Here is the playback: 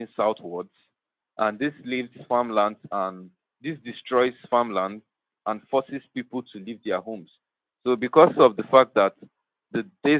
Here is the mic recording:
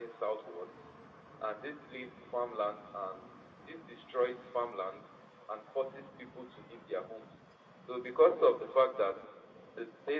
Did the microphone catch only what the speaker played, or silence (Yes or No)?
Yes